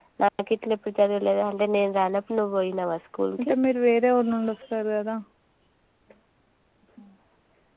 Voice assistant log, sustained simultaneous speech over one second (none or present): none